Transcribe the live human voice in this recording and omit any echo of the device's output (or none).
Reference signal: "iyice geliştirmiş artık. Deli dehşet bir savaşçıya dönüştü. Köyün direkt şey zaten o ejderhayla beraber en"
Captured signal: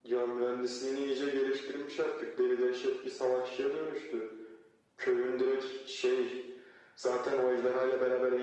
none